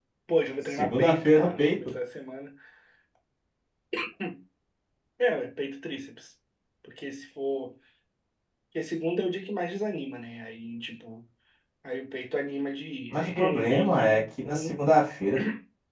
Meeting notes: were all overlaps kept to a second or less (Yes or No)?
No